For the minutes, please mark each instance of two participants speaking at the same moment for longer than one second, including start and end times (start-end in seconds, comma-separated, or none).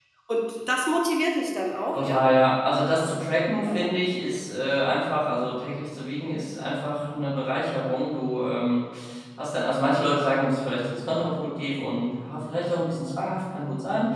none